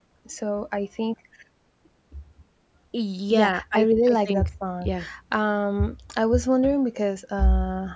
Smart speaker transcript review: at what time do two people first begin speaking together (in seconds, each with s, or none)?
3.3 s